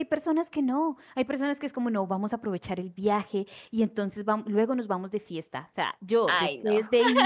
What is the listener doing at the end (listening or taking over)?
listening